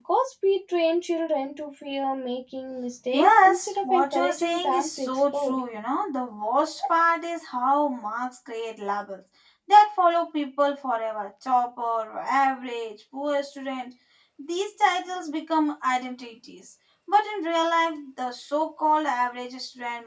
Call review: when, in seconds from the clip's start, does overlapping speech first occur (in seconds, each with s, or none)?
3.1 s